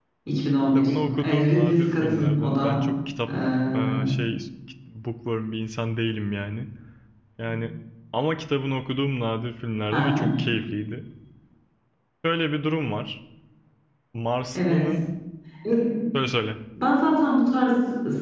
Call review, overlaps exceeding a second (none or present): present